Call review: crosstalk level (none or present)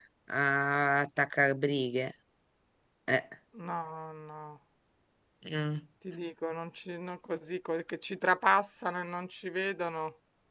none